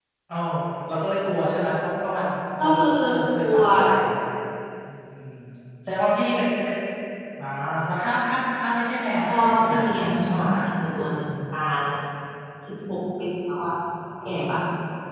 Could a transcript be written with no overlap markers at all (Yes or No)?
No